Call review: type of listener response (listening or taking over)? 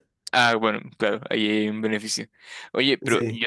listening